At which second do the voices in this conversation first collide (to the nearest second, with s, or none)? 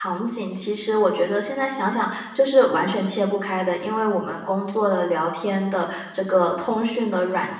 none